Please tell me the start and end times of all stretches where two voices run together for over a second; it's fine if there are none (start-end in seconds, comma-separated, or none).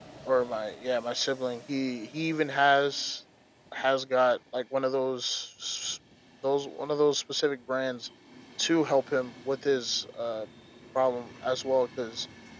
none